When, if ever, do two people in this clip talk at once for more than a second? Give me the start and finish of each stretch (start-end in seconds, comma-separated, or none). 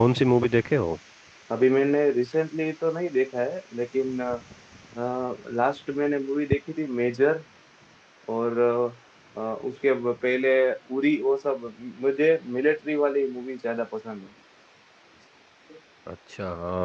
none